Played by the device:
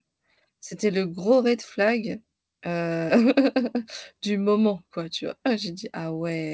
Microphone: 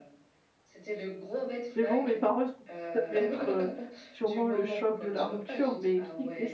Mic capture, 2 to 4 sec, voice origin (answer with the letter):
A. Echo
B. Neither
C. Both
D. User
C